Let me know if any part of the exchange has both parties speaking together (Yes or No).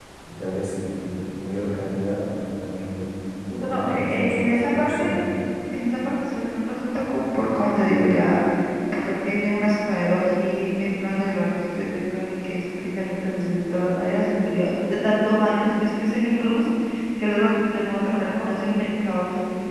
Yes